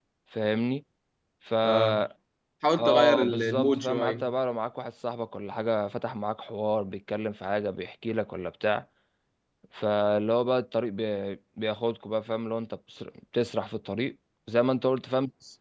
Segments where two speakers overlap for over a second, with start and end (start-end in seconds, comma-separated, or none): 2.8-4.2